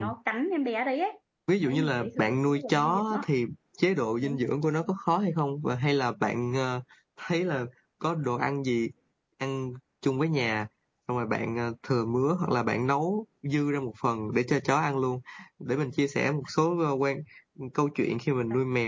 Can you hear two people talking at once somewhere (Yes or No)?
Yes